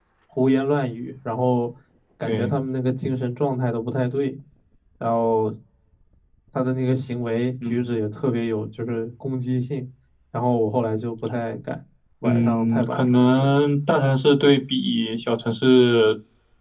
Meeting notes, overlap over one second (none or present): present